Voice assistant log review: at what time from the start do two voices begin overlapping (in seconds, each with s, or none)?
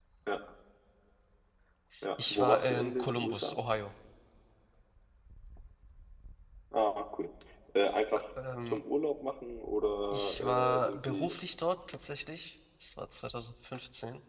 2.2 s